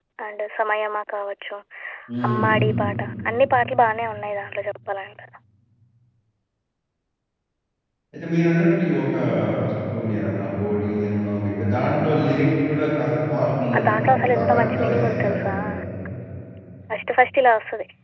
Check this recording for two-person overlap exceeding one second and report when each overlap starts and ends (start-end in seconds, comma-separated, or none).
13.8-15.5